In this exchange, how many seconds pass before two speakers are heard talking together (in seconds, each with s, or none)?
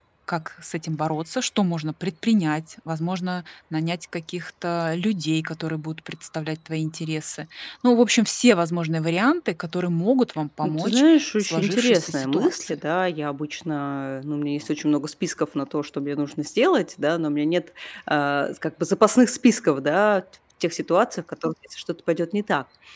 10.6 s